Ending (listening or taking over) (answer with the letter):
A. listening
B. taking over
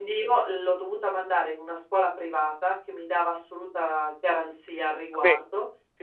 A